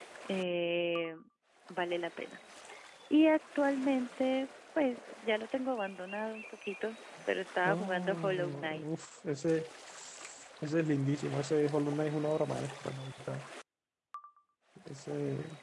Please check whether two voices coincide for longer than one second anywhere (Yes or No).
Yes